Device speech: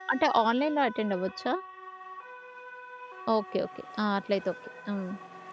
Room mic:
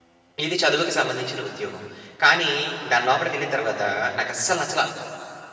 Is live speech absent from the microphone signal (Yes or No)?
No